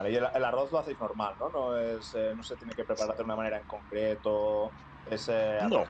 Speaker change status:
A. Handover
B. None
B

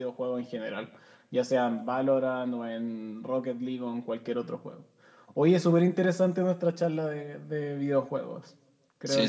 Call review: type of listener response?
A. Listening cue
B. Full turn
B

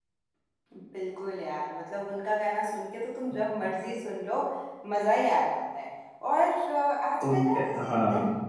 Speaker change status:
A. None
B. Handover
A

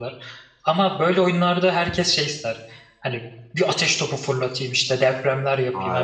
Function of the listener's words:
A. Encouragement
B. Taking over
A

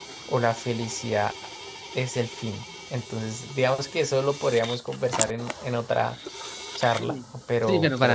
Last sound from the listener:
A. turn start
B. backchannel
A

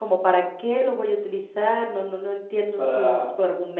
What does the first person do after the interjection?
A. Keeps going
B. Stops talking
A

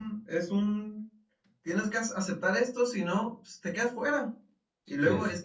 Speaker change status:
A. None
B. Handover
A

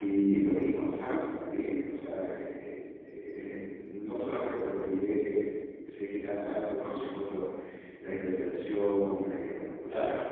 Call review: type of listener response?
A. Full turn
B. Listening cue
B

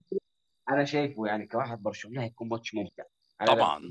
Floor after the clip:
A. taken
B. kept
A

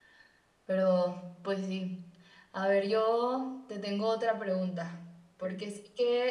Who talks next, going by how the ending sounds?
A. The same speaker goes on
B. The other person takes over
A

